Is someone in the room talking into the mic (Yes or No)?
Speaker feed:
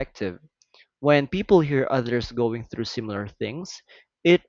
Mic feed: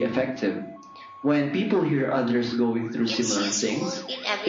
Yes